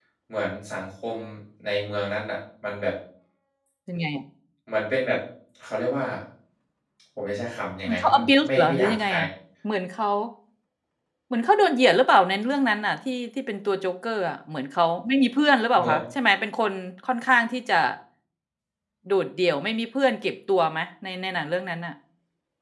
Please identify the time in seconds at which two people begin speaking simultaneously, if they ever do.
7.9 s

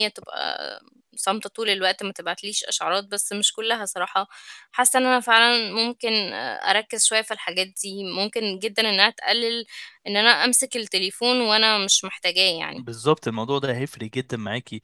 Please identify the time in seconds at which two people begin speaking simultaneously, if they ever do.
none

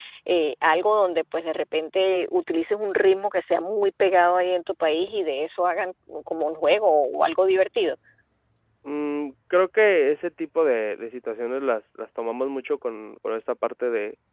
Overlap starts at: none

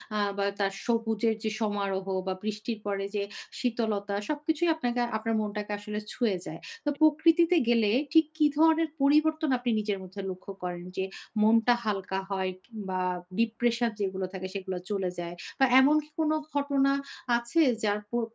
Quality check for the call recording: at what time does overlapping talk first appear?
none

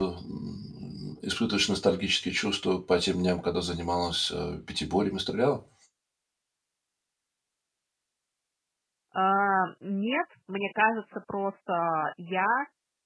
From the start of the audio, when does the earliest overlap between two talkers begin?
none

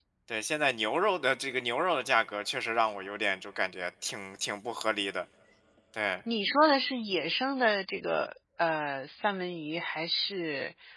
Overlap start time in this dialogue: none

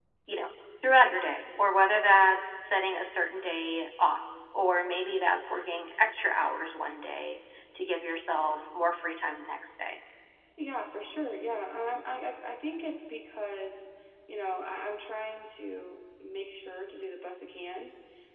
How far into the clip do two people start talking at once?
none

